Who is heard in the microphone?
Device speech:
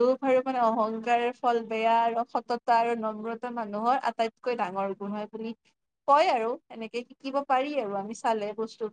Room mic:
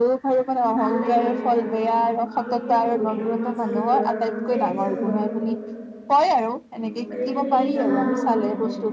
both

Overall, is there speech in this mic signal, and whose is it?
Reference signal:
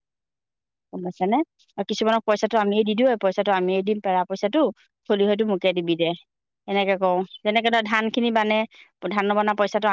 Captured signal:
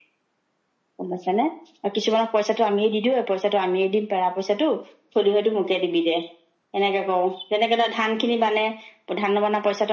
echo only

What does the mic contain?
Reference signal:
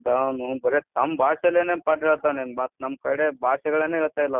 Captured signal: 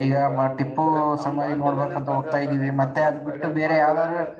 both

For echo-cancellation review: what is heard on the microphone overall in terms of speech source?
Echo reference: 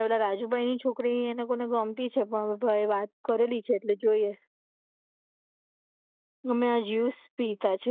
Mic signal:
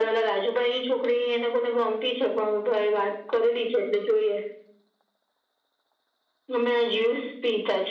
echo only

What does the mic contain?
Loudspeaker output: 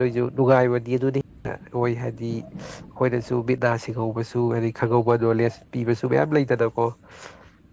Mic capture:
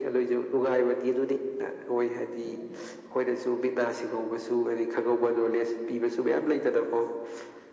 echo only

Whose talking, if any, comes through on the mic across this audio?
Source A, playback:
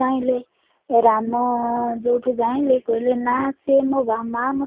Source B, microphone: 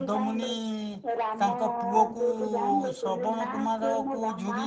both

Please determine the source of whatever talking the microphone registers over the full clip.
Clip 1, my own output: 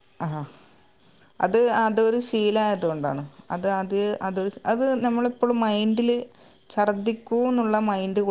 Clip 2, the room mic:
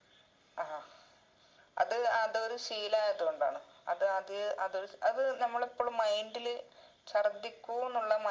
echo only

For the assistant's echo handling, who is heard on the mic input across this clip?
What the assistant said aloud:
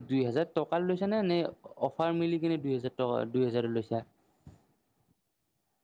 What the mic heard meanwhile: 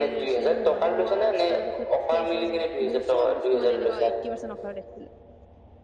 both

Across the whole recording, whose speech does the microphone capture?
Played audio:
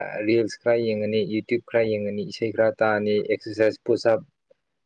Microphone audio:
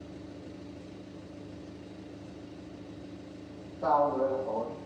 user only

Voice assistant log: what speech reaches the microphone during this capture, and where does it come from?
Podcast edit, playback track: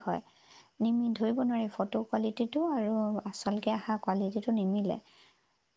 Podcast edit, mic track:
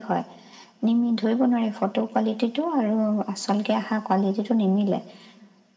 echo only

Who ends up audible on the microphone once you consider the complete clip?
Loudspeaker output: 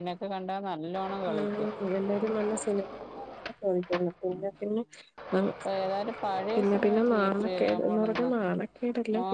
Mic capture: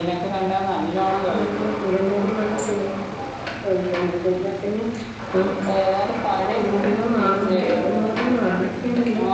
echo only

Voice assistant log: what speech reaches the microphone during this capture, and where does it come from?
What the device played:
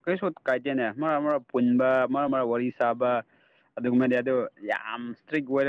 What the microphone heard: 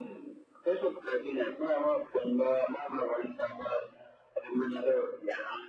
echo only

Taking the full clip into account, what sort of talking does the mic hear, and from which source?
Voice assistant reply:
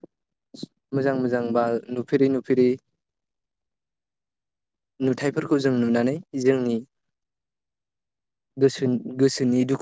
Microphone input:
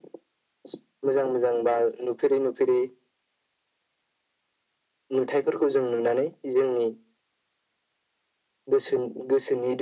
echo only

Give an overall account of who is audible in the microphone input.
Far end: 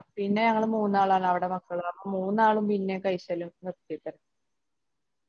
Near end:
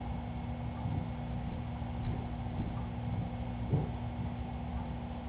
neither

